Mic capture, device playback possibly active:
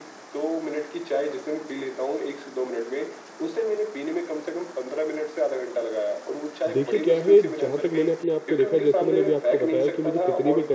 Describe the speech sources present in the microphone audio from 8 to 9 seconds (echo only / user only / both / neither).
both